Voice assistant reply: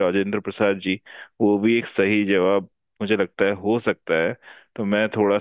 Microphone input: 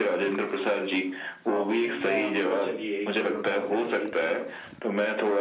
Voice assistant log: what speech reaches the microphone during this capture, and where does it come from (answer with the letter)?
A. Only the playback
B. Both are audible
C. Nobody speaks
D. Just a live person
B